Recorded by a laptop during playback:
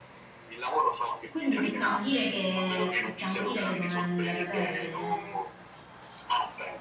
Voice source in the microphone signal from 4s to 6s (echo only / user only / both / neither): both